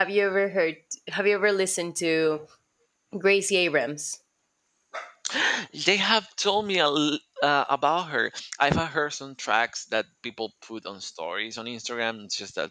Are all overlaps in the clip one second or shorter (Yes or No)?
Yes